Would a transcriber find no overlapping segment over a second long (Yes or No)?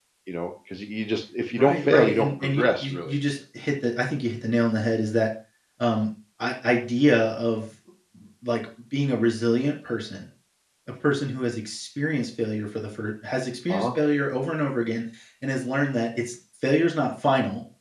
No